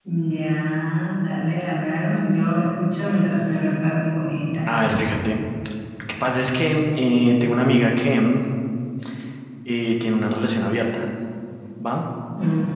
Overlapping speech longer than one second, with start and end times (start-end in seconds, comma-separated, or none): none